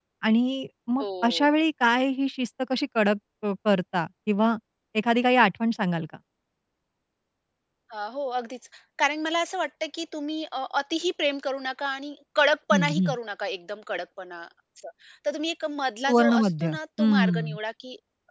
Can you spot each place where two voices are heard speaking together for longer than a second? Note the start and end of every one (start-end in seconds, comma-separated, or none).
16.1-17.6